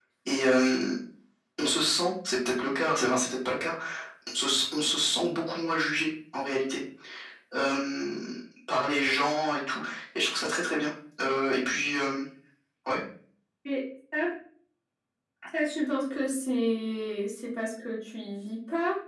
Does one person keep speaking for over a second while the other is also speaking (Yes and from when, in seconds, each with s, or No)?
No